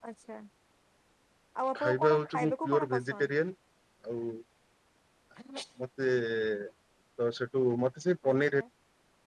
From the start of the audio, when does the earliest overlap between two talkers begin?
1.8 s

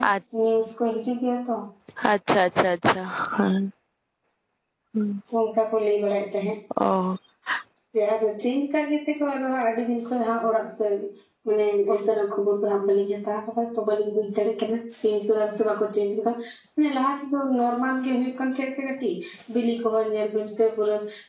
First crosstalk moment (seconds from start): none

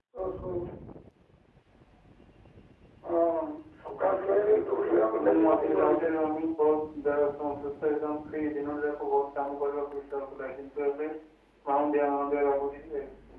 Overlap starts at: 4.0 s

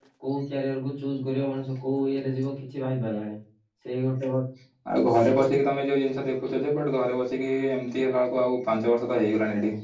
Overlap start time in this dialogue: none

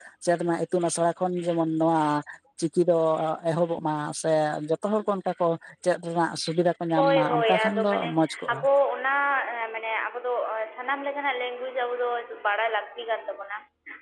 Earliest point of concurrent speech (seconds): 7.0 s

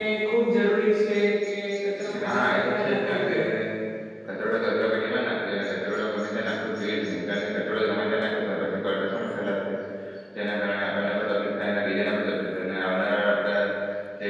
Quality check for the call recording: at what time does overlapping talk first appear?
2.1 s

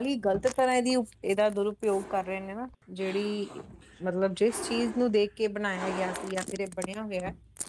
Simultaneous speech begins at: none

